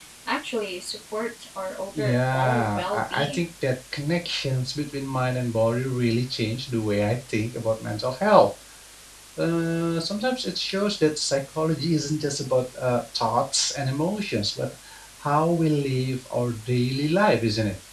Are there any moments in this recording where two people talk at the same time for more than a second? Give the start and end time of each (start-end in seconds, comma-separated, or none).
1.9-3.5